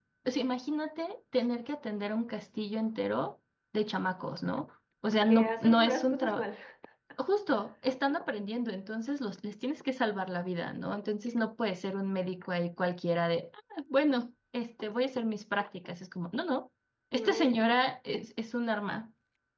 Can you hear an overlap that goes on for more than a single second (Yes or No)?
Yes